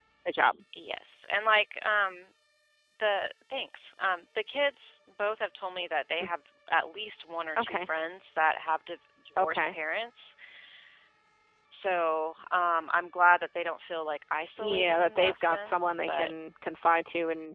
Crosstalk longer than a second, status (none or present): present